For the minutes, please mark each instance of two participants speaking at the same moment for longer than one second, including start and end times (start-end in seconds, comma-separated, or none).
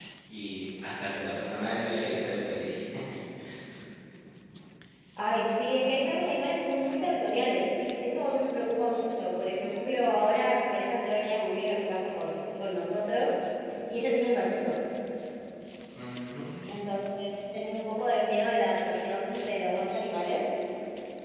none